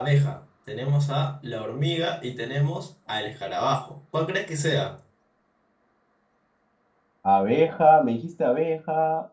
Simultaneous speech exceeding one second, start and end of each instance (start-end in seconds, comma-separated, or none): none